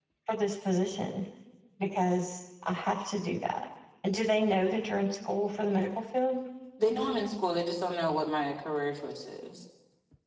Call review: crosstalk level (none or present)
none